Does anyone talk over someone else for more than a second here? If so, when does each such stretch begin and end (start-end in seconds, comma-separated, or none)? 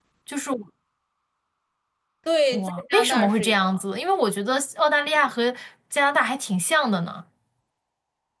2.5-3.8